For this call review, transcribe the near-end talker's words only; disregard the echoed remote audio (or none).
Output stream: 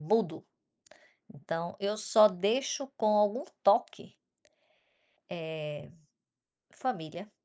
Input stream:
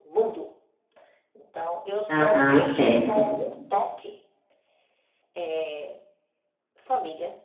Aham, certo.